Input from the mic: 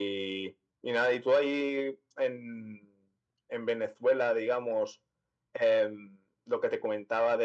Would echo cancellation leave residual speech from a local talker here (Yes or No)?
No